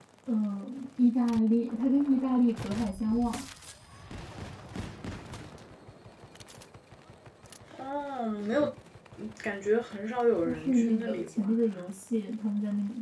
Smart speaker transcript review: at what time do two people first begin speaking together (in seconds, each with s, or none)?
10.4 s